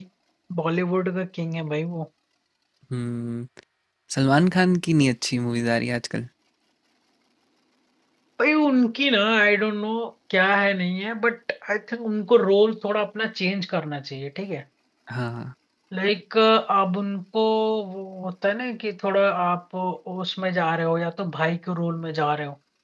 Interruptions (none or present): none